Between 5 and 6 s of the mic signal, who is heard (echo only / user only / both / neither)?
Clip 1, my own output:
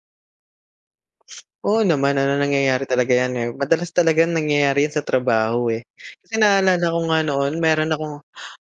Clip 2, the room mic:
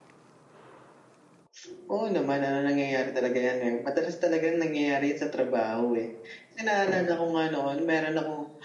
echo only